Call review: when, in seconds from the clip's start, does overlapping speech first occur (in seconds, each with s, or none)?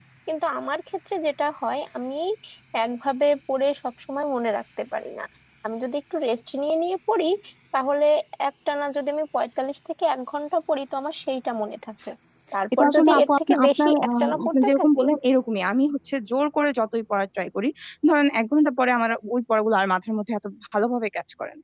12.8 s